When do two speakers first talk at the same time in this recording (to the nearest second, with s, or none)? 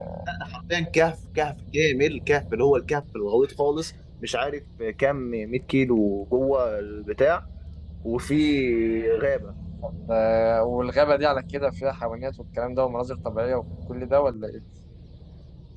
none